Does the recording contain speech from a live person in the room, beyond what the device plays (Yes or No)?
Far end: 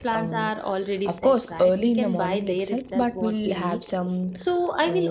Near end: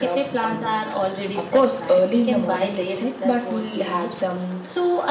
No